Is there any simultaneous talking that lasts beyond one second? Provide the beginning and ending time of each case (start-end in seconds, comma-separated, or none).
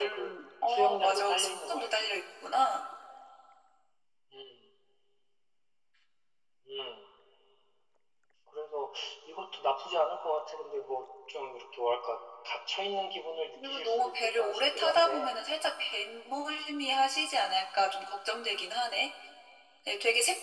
0.7-1.9, 13.6-15.3